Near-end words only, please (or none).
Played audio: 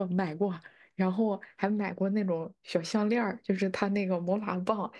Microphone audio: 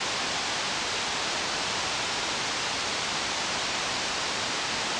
none